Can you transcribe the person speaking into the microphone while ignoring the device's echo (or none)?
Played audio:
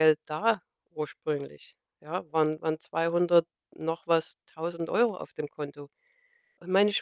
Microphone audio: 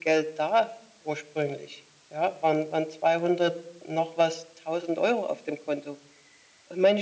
none